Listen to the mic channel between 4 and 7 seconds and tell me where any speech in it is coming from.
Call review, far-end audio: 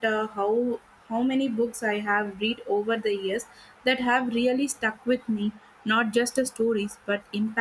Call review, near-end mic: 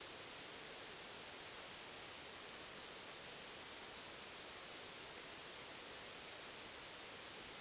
neither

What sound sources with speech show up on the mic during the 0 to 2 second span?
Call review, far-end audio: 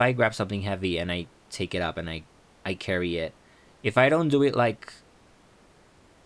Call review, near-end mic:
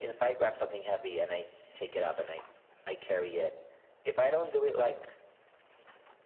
echo only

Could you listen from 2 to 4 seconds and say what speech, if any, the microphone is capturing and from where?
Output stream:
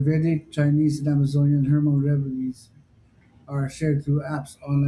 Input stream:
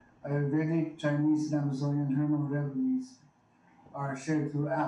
echo only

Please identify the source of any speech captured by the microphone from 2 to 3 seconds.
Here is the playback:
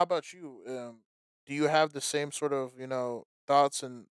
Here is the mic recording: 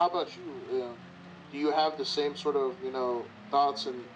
echo only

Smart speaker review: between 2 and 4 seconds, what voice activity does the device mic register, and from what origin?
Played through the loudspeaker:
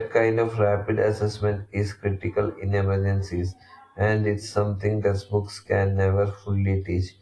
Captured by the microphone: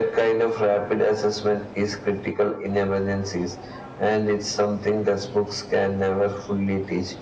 echo only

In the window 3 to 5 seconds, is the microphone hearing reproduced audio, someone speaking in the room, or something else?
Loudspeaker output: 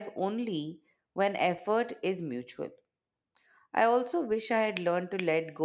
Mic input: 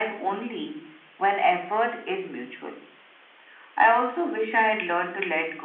echo only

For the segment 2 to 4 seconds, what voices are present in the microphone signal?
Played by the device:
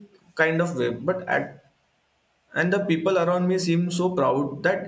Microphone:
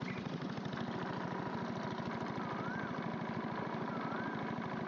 neither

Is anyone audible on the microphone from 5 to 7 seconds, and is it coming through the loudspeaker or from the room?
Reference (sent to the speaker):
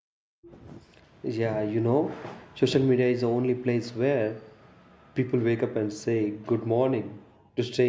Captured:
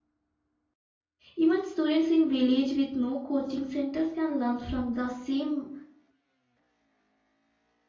user only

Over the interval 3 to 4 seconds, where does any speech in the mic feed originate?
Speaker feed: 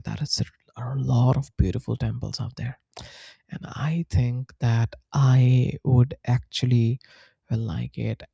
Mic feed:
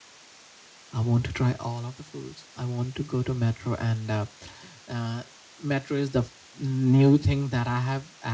user only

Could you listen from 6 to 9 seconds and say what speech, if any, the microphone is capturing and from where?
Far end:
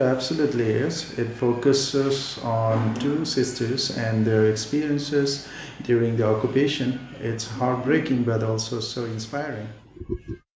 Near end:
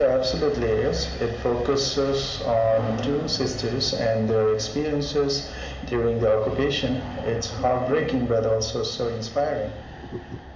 echo only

